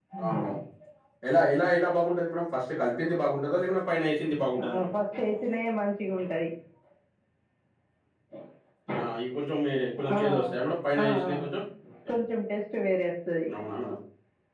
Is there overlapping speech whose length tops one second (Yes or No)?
No